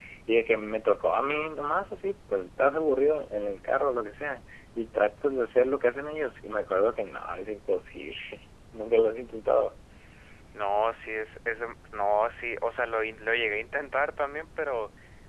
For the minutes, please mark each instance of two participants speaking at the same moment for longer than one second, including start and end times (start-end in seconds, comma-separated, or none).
none